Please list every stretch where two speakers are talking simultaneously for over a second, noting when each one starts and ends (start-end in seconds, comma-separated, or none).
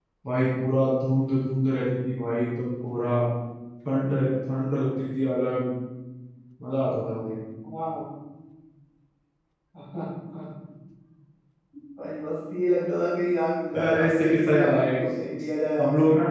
13.8-15.0